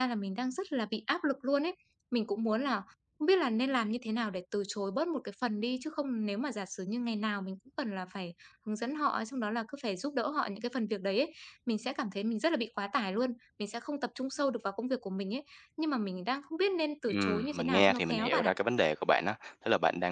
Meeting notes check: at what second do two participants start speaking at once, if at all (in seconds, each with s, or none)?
17.1 s